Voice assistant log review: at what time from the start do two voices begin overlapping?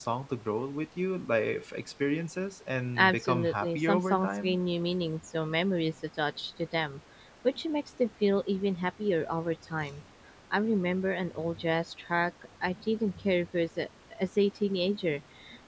3.0 s

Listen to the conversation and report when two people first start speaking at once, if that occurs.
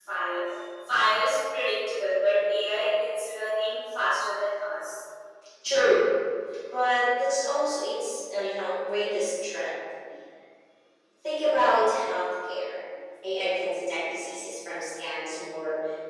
none

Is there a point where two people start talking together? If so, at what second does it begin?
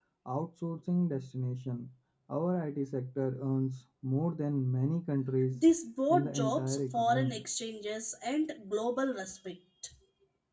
6.1 s

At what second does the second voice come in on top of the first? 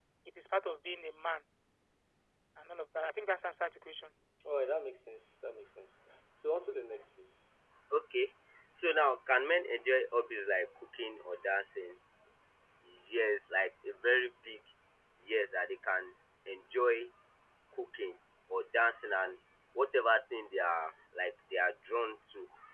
none

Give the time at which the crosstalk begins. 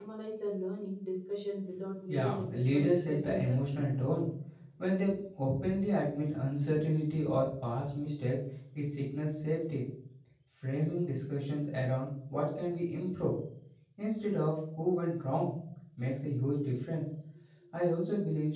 2.1 s

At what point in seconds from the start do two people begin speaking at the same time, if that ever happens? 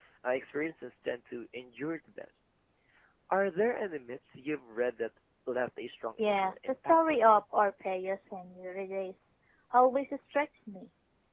6.2 s

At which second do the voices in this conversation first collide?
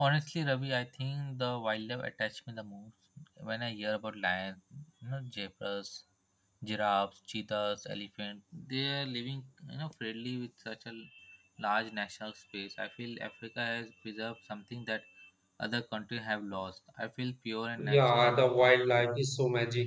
17.8 s

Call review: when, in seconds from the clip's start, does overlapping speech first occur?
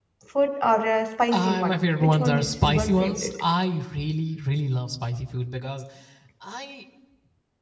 1.3 s

